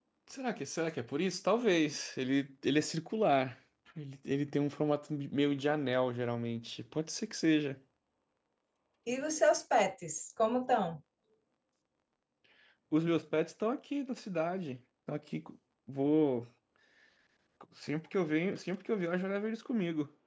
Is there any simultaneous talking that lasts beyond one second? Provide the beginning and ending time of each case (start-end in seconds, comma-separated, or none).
none